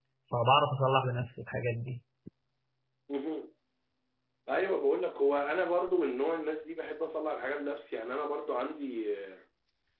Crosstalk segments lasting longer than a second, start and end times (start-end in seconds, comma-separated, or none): none